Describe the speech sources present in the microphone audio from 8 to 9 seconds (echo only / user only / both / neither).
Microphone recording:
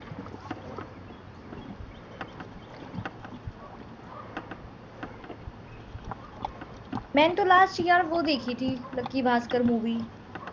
user only